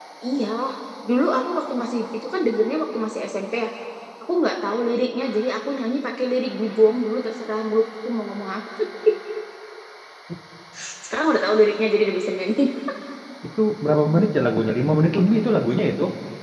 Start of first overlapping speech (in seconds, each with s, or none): none